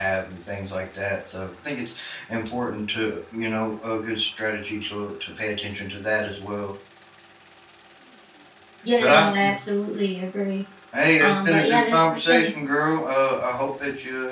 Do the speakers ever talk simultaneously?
Yes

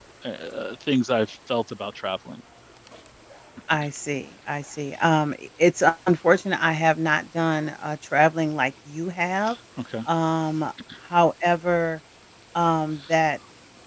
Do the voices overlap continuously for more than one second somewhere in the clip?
No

